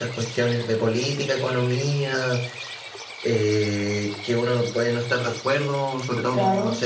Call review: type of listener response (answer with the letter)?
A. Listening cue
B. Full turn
A